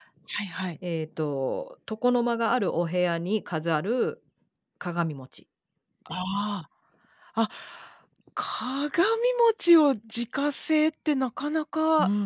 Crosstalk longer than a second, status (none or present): none